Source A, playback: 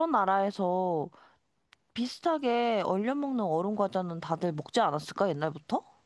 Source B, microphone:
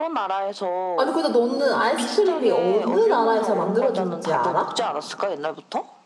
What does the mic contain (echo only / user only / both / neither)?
both